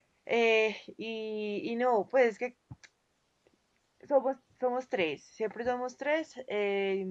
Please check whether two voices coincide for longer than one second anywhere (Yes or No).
No